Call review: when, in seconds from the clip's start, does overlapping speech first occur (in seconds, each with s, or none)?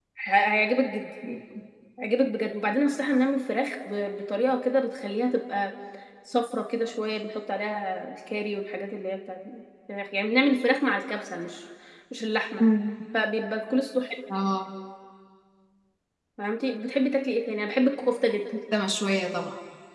none